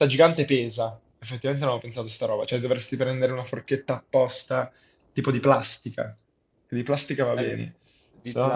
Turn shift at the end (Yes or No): Yes